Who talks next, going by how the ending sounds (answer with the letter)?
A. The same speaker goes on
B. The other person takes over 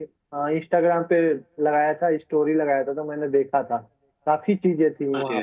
A